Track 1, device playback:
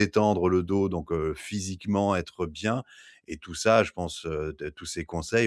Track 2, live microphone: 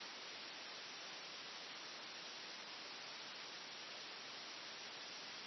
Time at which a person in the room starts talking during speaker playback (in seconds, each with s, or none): none